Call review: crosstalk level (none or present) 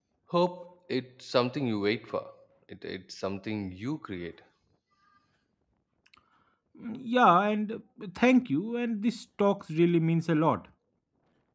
none